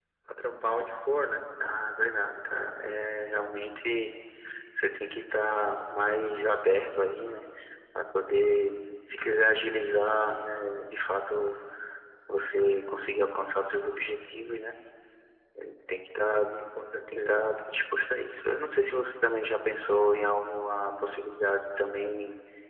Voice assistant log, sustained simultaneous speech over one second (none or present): none